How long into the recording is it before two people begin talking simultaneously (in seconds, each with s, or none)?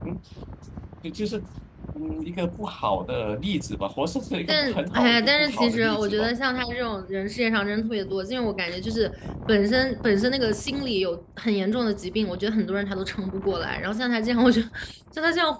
4.5 s